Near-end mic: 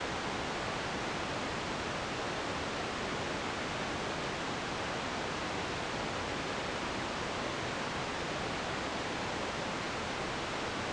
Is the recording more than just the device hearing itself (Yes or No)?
No